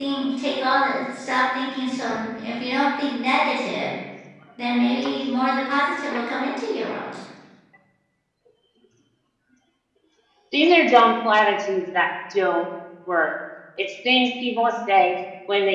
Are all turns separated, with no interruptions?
Yes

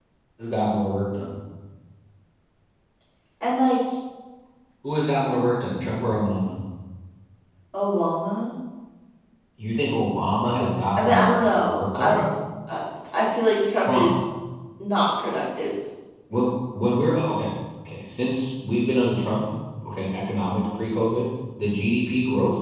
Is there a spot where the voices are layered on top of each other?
Yes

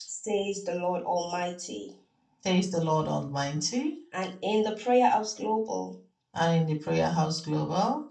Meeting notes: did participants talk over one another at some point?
No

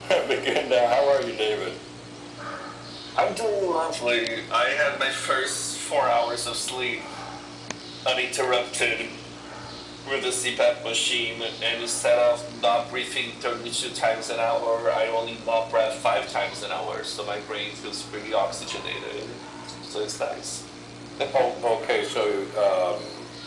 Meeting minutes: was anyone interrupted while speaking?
No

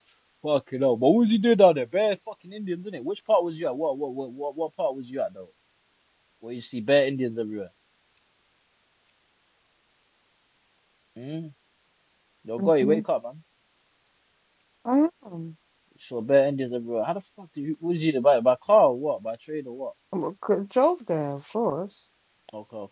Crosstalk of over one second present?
No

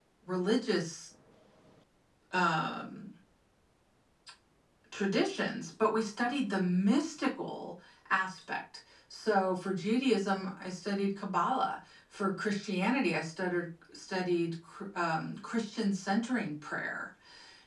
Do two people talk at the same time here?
No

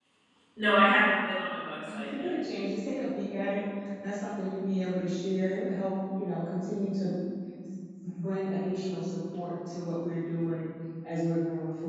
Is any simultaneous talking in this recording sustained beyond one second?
No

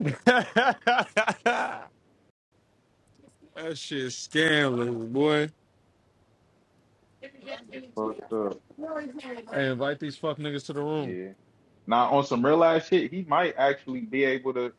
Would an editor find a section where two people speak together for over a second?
No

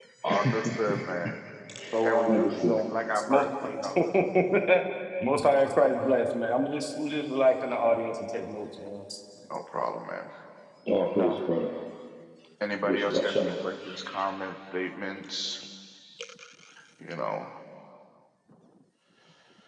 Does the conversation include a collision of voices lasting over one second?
Yes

